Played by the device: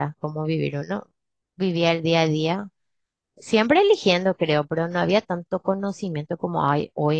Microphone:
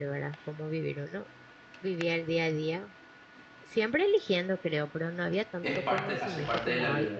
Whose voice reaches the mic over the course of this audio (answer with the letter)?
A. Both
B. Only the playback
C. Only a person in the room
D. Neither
A